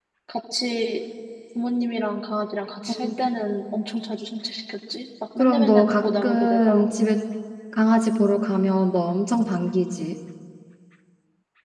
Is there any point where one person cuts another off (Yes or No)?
Yes